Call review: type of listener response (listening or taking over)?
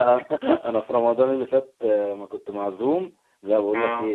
listening